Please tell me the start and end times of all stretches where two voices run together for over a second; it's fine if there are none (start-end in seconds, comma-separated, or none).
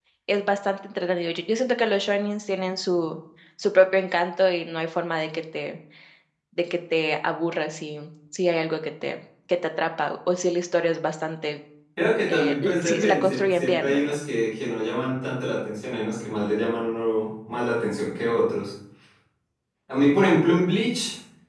12.3-14.2